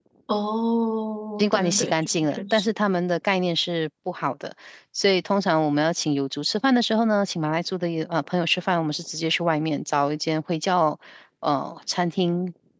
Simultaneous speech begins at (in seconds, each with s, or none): 1.4 s